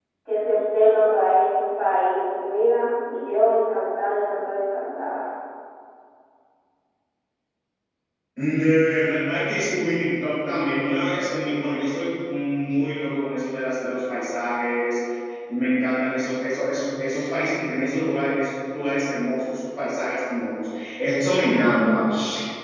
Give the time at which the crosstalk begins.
none

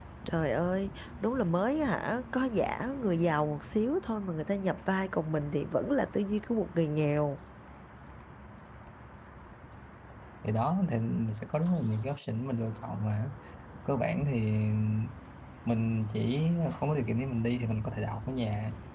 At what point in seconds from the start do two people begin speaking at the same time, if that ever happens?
none

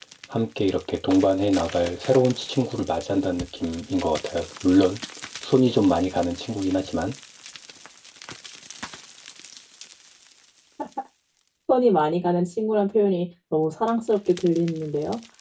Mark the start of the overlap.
none

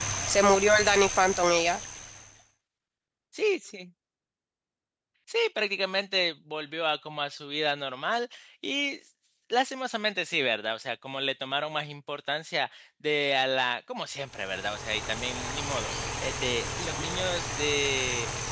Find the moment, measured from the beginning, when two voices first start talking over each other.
none

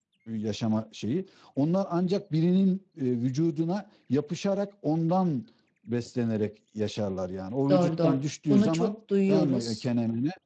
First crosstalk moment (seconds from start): 7.7 s

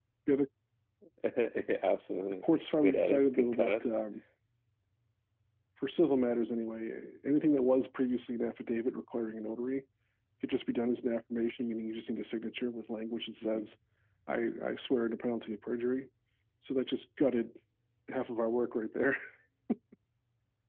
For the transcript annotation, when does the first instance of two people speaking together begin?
2.4 s

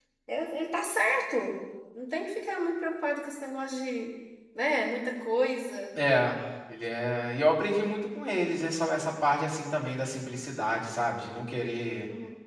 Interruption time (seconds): none

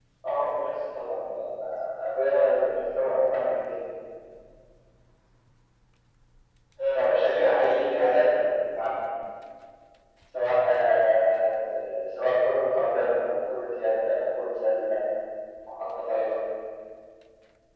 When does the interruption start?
7.0 s

